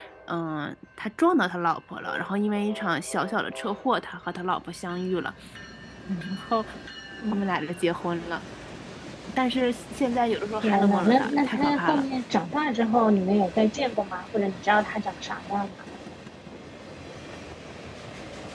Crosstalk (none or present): present